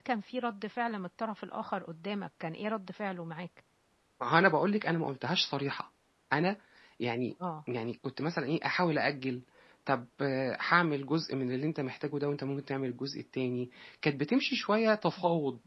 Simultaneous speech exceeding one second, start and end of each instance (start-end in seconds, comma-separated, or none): none